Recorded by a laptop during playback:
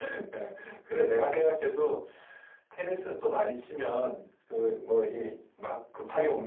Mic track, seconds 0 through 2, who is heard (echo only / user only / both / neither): echo only